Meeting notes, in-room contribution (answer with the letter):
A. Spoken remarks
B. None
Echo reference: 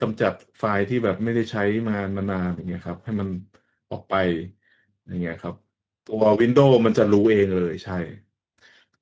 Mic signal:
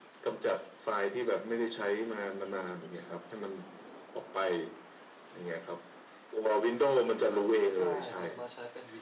A